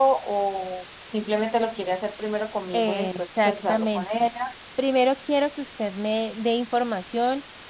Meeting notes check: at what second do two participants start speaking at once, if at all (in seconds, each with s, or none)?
2.7 s